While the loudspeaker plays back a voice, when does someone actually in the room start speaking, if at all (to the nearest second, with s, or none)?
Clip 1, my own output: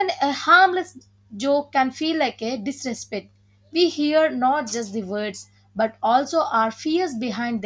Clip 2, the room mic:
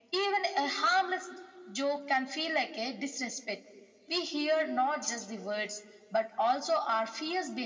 none